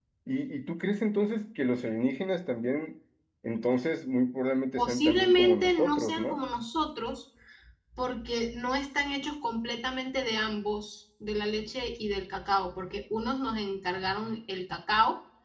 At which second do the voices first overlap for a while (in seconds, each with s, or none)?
4.8 s